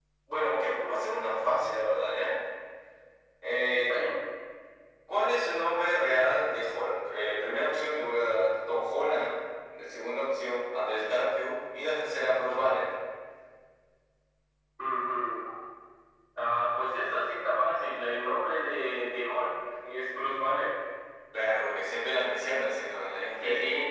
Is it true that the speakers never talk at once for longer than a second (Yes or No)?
Yes